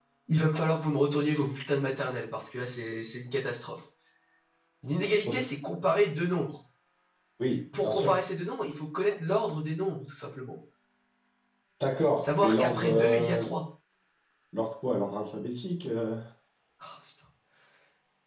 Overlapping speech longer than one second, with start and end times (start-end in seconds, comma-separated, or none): 12.2-13.5